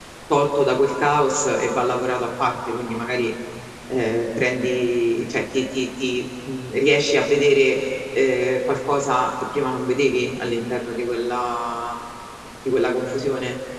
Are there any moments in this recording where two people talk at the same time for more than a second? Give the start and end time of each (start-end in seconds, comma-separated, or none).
none